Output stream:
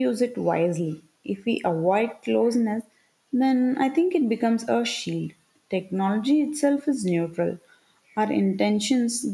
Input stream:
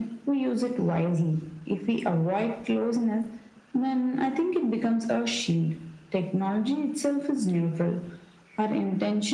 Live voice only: none

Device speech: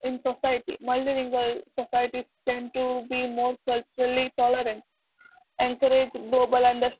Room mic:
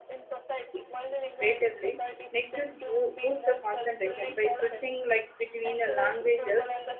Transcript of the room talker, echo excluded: creatively. Next is boo- boost the concentration by switching like between uh, languages

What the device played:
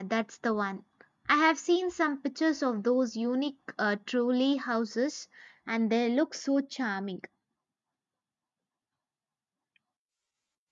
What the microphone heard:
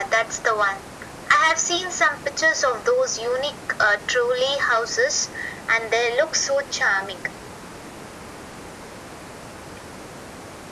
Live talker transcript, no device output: none

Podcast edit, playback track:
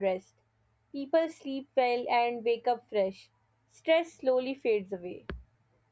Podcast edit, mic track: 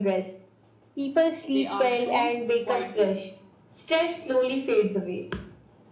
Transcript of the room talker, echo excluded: they are shown quietly.

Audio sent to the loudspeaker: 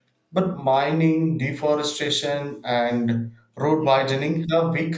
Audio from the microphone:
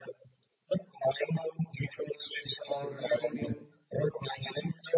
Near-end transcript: are receiving

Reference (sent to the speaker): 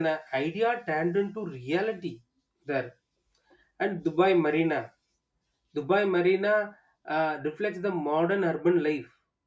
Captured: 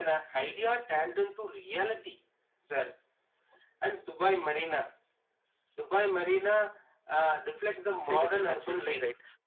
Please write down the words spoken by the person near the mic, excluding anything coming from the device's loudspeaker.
sail in the sense we'll see right

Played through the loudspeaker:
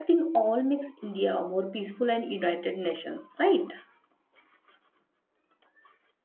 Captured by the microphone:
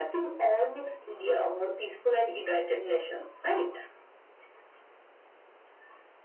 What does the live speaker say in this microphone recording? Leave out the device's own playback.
none

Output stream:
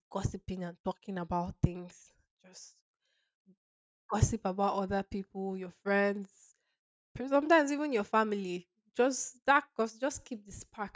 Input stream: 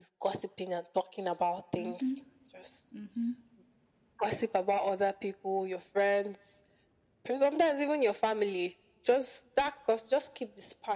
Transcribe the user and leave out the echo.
Mm-hmm. Mm-hmm.

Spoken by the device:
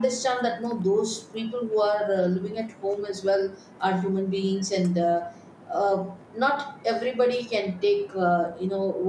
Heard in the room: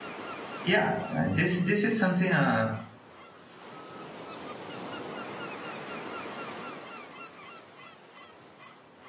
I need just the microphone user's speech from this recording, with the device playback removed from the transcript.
yeah uh, this this is something uh,

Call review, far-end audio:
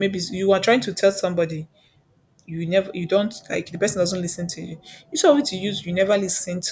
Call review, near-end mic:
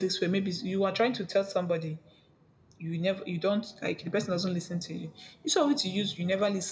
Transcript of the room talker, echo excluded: none

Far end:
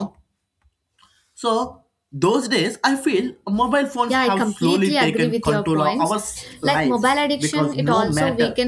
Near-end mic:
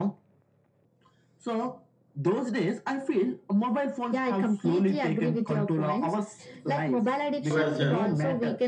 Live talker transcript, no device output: Well said.

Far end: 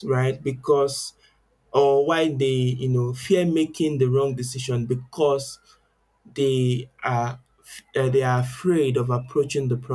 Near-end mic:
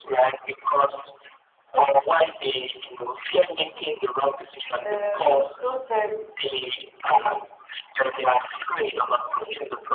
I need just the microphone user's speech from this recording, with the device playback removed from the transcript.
um, sometimes it's

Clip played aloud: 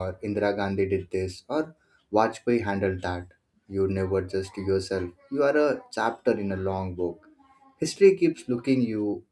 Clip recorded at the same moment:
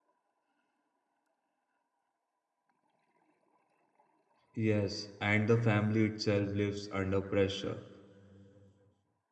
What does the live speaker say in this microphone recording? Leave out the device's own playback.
Yes, and the family itself lives under pressure.

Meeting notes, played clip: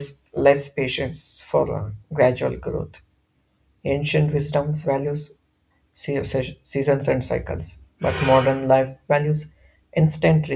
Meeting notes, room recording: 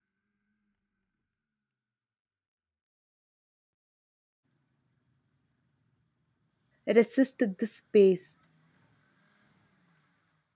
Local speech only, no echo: resist this space.

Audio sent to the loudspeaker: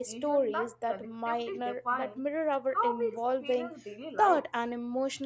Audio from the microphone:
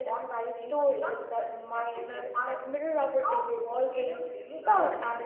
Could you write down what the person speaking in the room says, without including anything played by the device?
none

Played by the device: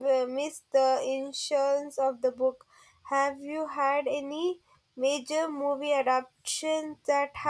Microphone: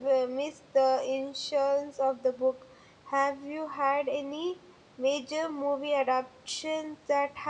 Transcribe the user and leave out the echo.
none

